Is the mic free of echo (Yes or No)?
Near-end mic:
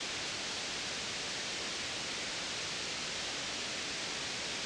Yes